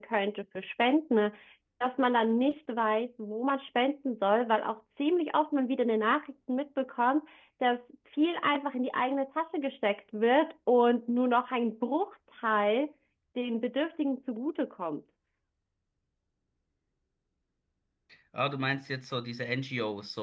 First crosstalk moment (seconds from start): none

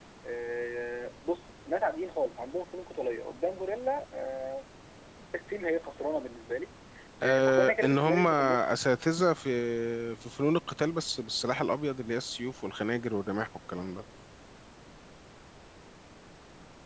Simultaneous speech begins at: 7 s

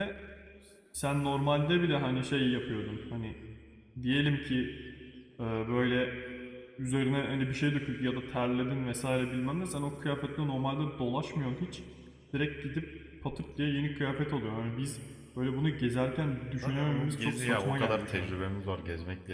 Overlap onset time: 17 s

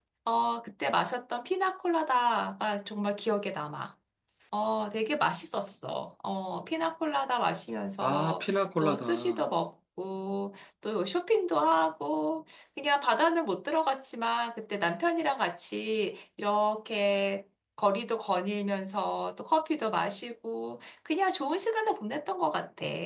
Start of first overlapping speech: 8 s

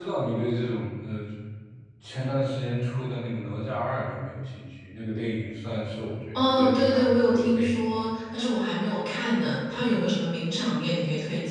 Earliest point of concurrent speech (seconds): 6 s

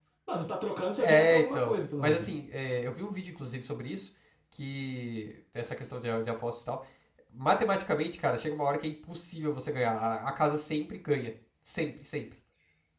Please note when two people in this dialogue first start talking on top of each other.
1 s

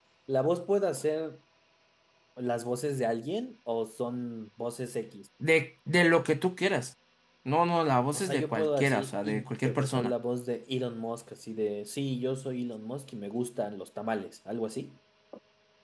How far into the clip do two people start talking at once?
8 s

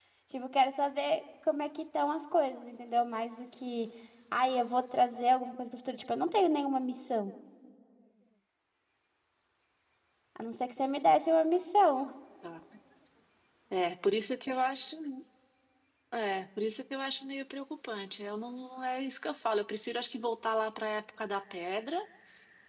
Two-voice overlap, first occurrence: none

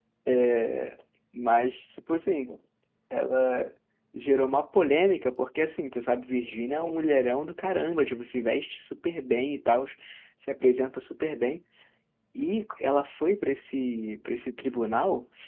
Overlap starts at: none

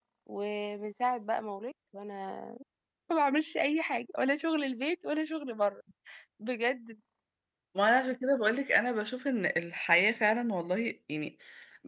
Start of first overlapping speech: none

